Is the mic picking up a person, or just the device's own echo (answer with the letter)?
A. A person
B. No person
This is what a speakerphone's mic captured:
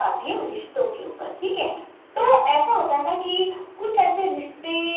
B